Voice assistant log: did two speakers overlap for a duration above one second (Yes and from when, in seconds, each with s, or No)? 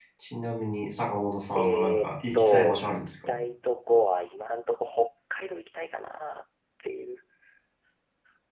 Yes, from 1.5 s